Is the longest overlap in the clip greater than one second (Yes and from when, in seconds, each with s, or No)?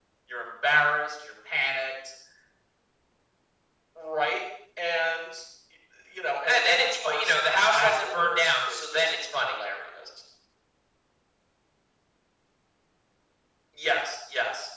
Yes, from 6.5 s